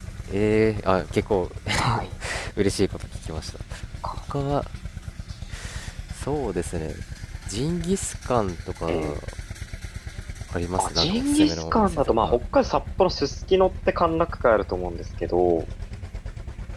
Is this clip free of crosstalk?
No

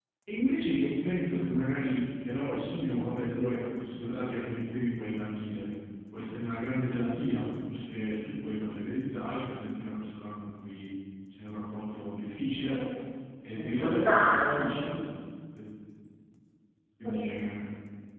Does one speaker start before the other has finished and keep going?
Yes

